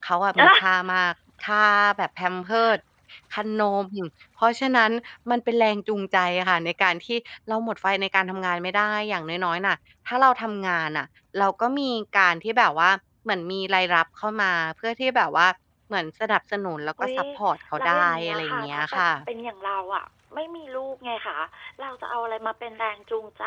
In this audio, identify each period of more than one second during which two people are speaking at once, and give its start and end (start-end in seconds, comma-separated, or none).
17.8-19.0